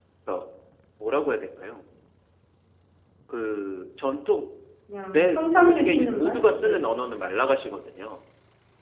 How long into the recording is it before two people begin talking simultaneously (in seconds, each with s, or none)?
5.1 s